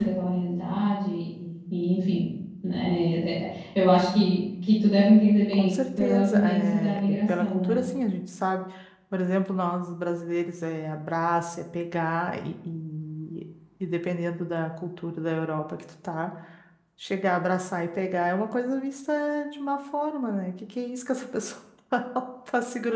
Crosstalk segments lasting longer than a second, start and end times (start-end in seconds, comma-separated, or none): 5.5-7.8